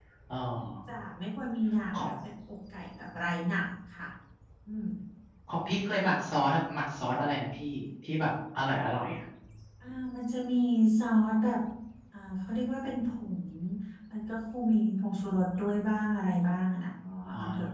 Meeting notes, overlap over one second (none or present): none